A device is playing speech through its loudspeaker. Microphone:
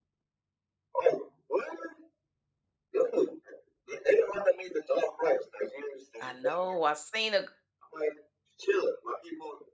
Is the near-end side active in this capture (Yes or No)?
Yes